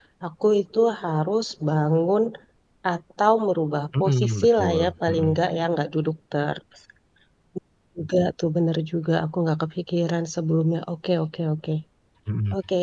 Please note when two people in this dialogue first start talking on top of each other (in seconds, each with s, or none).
3.9 s